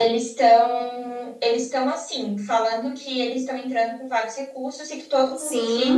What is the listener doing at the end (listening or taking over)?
listening